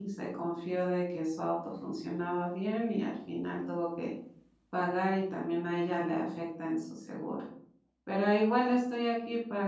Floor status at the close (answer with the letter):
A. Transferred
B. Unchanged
B